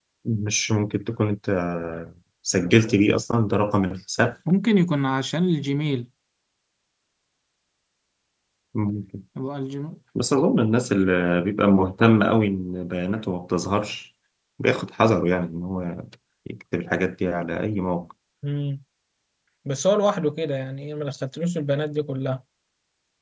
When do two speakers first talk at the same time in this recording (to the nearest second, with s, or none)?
none